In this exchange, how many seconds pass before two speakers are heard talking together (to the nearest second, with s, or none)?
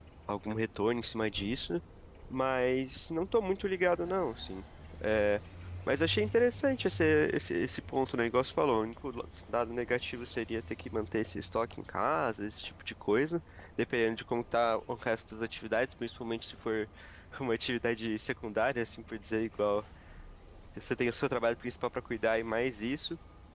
none